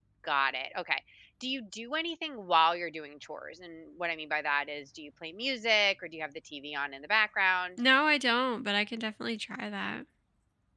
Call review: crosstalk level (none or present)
none